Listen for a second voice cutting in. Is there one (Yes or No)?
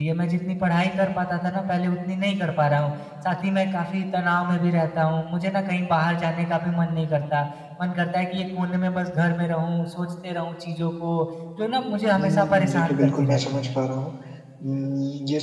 Yes